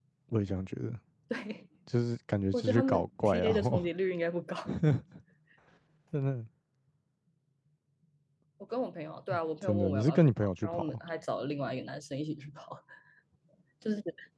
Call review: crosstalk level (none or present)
present